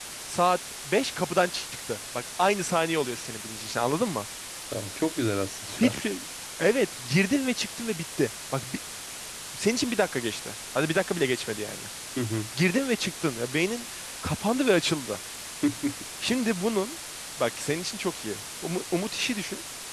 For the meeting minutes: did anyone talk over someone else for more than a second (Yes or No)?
No